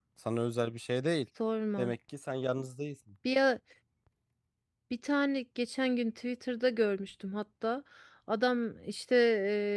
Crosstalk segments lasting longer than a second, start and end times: none

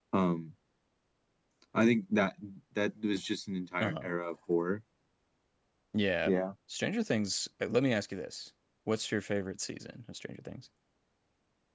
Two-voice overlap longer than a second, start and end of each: none

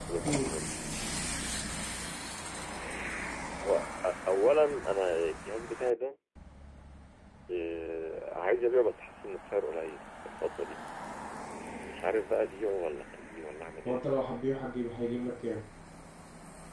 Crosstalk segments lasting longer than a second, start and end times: none

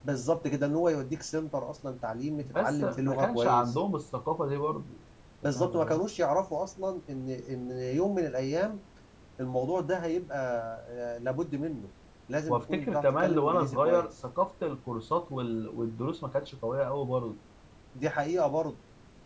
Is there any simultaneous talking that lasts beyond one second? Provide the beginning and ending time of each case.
2.4-3.7, 12.5-14.1

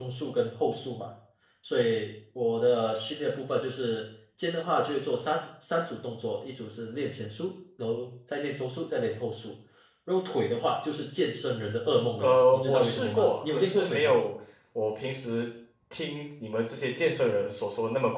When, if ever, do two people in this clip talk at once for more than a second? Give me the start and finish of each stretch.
12.2-14.2

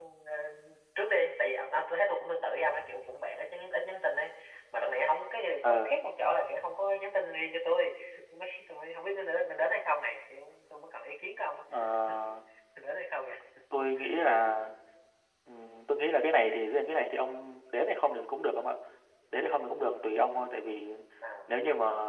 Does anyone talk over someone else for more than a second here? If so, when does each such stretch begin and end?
none

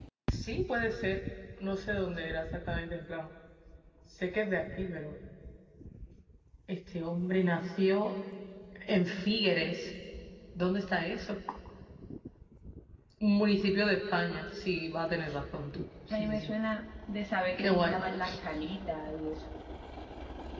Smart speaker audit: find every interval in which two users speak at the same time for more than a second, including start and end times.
none

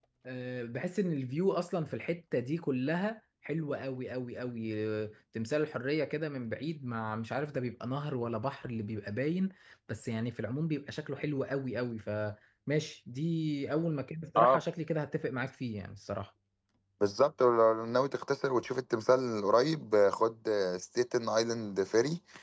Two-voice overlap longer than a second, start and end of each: none

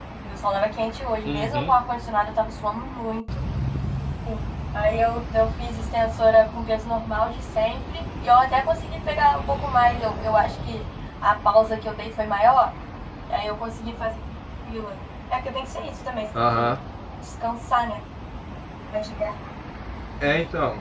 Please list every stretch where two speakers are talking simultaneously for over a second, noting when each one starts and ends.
none

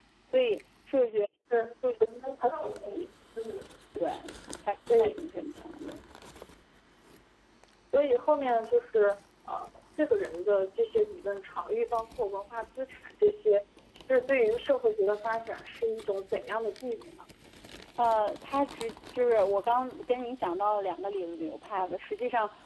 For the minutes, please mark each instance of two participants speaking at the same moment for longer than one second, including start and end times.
none

